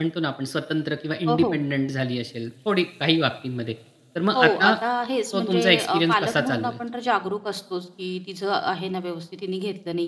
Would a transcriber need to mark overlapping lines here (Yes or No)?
Yes